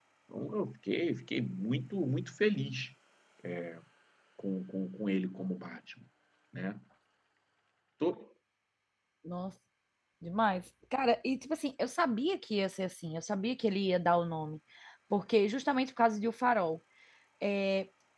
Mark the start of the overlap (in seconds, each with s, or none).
none